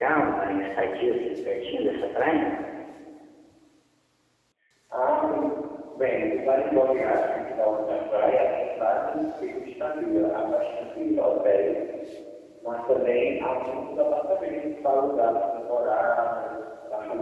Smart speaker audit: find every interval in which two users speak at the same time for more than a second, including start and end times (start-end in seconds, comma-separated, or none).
none